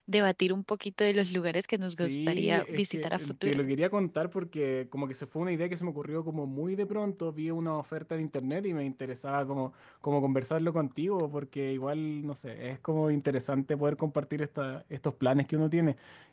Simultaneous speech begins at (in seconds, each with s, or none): 2.0 s